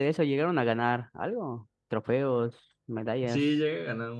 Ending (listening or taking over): taking over